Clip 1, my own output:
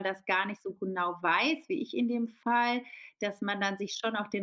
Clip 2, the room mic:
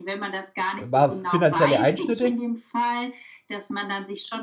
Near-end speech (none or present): present